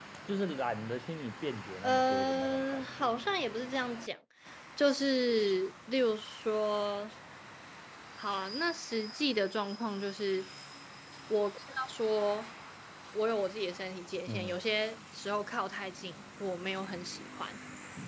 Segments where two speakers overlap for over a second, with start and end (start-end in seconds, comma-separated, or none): 1.8-3.1